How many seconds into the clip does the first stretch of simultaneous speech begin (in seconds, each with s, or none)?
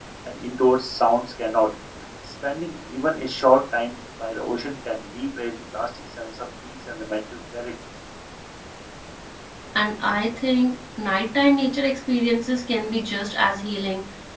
none